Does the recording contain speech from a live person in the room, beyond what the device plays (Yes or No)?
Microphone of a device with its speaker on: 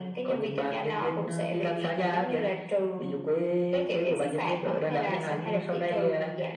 No